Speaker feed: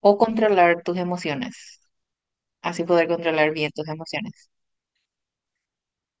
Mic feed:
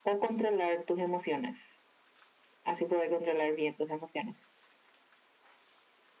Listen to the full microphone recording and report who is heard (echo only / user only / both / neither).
echo only